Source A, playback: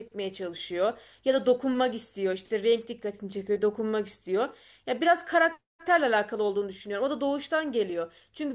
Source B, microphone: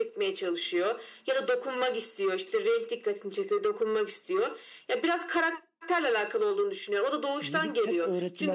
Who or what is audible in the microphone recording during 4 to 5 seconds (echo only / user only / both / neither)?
echo only